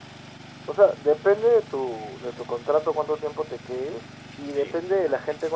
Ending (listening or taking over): listening